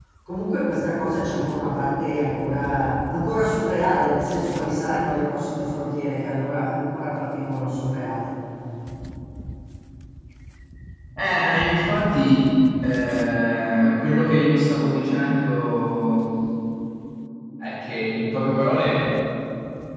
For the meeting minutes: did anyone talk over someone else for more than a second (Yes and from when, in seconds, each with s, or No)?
No